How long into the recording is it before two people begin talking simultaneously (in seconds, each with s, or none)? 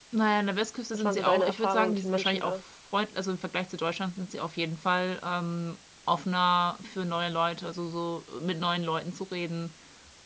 0.9 s